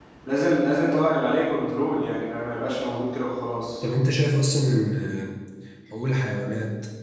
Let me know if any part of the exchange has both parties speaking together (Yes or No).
No